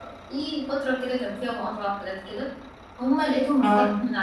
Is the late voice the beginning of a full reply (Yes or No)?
No